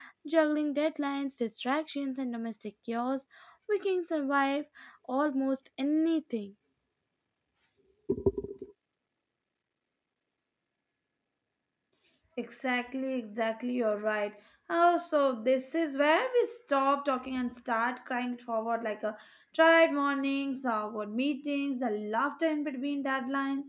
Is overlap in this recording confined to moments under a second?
Yes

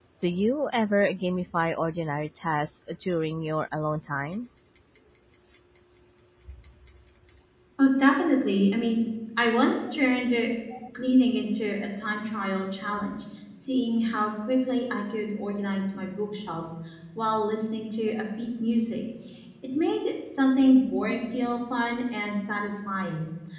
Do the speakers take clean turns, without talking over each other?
Yes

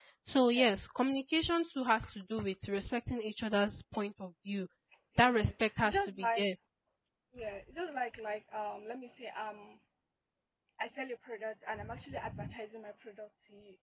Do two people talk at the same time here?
Yes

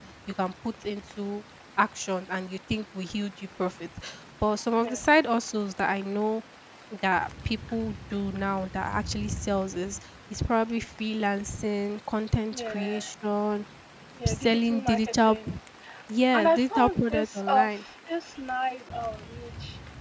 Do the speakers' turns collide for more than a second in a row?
Yes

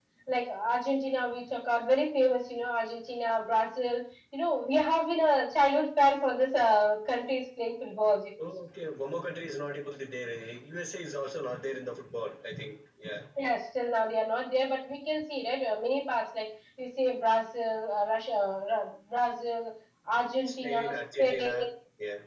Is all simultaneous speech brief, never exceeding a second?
No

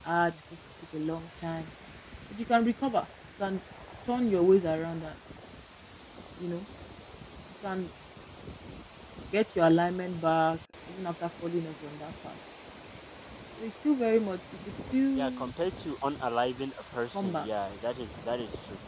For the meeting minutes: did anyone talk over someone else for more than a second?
No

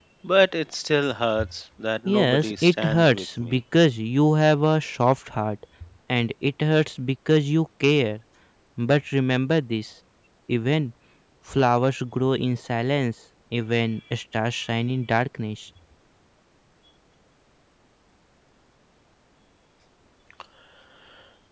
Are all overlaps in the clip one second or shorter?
No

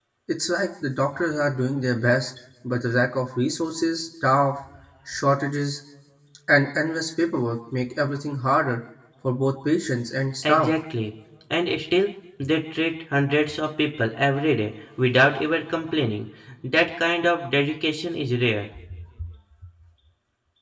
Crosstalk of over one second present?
No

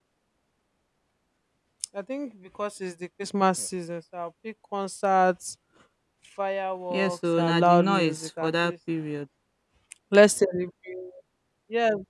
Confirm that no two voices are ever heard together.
No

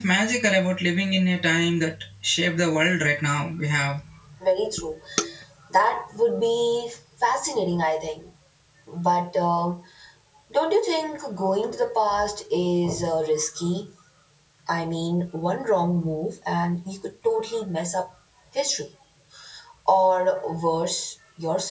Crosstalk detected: No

